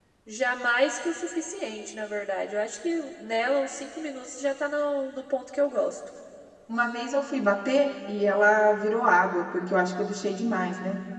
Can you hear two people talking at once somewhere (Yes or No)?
No